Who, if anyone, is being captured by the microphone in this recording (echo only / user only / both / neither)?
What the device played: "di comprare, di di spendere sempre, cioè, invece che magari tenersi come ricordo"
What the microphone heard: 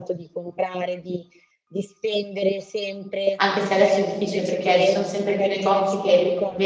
both